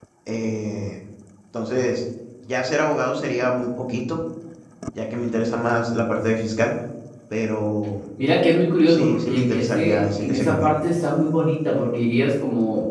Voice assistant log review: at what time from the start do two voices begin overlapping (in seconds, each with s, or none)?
8.9 s